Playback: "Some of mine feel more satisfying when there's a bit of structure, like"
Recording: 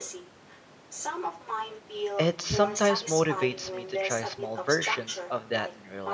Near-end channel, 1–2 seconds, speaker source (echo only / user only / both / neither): echo only